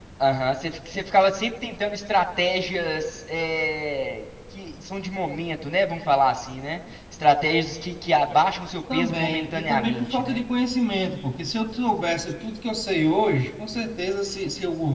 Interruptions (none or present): present